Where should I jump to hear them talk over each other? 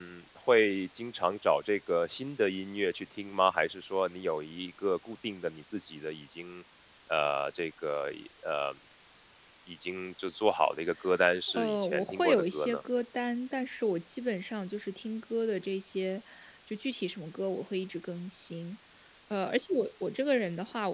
11 s

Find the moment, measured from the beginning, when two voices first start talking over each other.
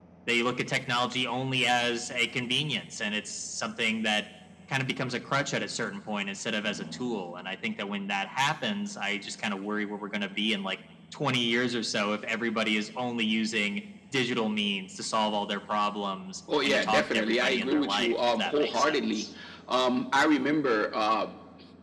16 s

